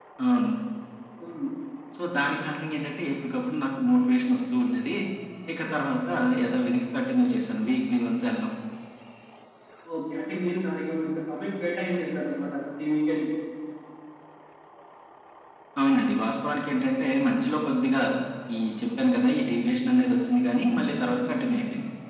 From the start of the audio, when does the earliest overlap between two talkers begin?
none

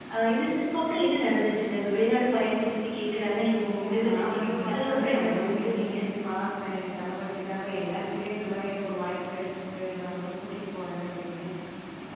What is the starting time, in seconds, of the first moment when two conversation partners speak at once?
3.8 s

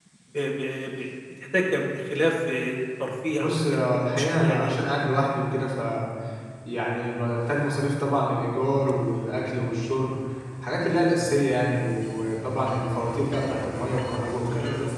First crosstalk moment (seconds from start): 3.3 s

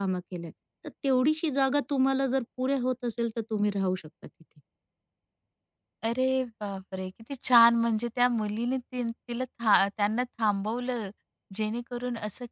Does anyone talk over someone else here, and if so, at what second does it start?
none

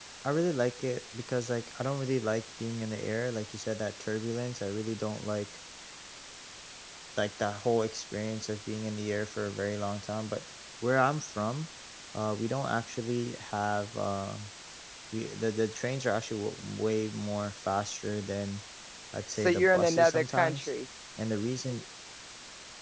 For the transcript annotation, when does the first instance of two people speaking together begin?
19.4 s

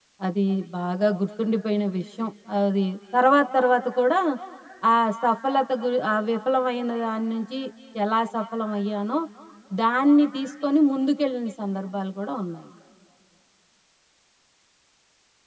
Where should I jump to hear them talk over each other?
none

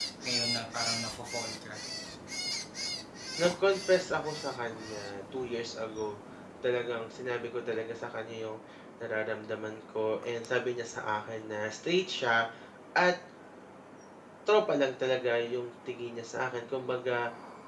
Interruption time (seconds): none

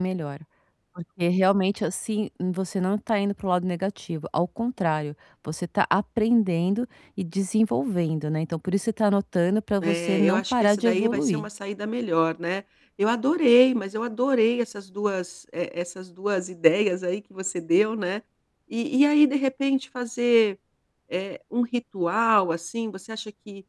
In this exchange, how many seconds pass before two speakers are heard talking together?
9.8 s

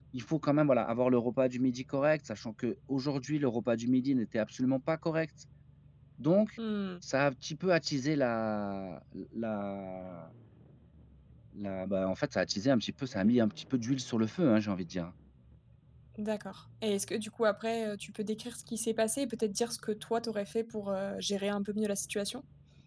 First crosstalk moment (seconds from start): none

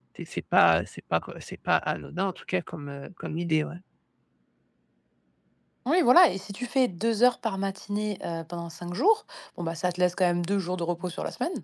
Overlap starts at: none

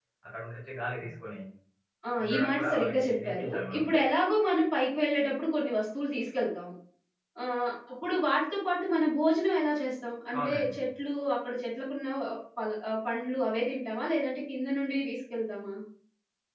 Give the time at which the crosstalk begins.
2.2 s

